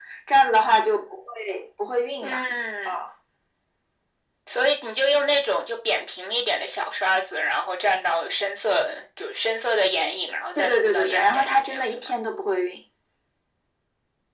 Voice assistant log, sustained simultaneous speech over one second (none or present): present